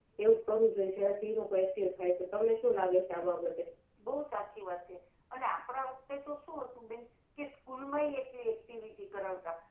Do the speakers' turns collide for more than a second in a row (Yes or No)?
No